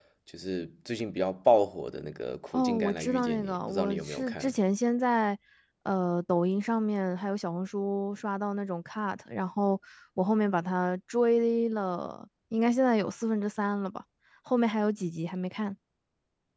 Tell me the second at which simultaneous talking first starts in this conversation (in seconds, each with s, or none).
2.5 s